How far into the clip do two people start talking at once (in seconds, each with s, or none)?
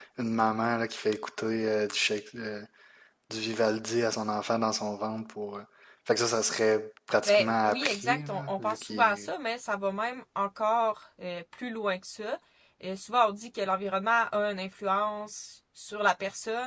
7.2 s